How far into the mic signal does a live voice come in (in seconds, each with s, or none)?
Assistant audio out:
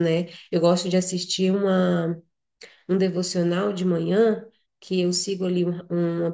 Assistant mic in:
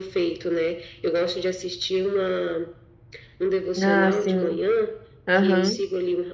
3.8 s